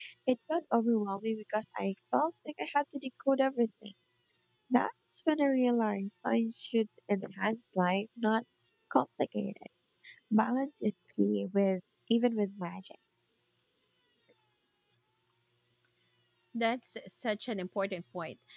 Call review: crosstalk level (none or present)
none